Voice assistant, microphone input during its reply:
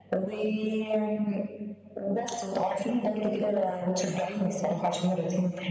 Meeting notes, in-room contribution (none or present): none